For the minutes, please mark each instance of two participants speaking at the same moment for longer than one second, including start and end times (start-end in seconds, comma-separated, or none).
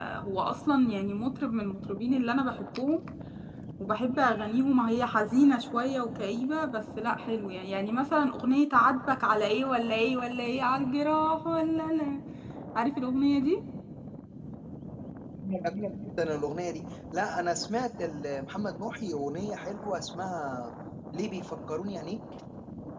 none